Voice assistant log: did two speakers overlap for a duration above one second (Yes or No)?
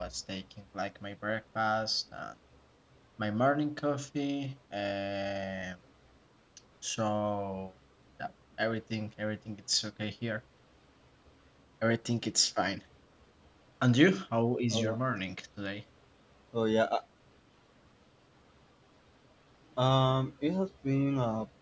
No